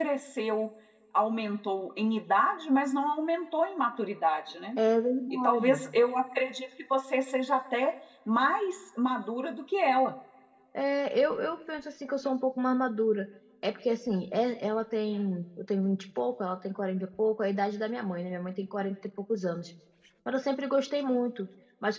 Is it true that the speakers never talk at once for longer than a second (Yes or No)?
Yes